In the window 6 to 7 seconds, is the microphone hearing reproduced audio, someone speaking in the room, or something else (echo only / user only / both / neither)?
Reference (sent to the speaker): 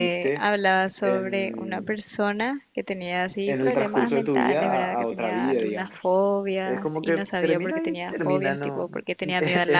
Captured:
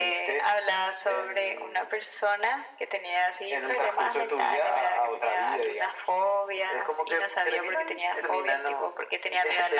echo only